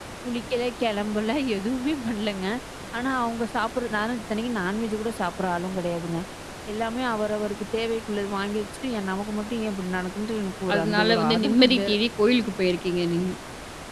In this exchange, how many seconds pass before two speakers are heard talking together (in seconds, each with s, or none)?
10.7 s